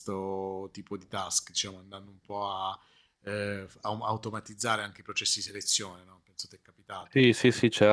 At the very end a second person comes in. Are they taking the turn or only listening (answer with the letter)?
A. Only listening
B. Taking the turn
B